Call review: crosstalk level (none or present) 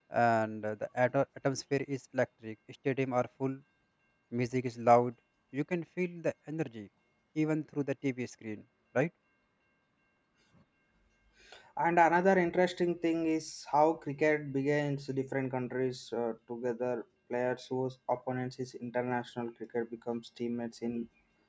none